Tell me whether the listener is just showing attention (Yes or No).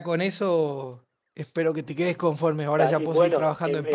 No